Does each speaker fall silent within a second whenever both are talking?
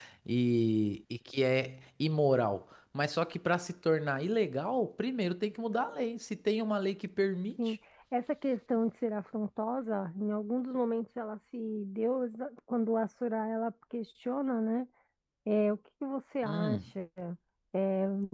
Yes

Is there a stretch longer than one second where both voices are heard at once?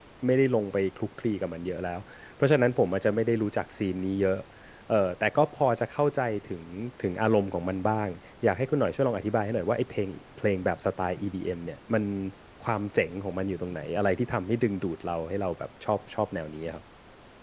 No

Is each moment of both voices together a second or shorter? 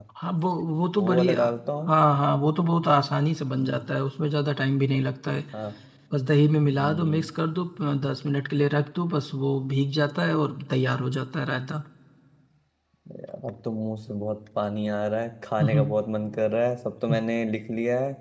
Yes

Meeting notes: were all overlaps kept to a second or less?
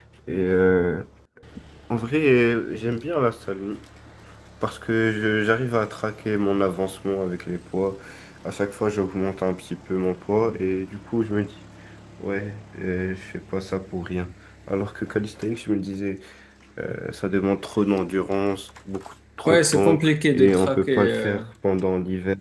No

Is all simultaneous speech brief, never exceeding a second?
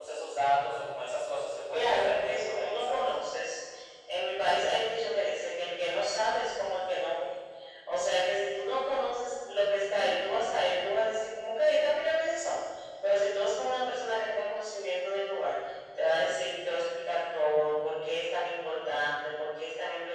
No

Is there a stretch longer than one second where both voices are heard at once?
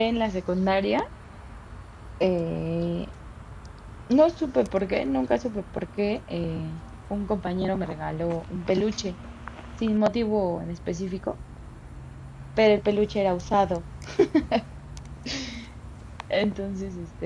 No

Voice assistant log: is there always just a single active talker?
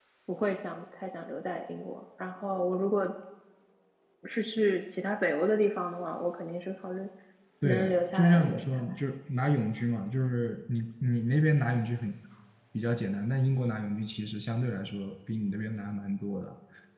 No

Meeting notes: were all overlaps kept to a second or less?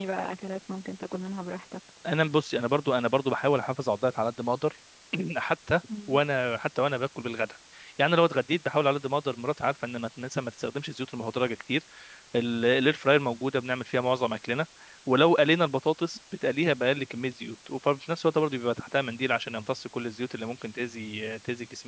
Yes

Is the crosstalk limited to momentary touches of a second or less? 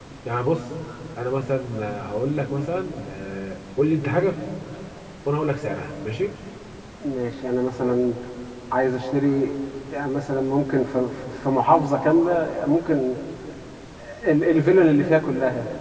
Yes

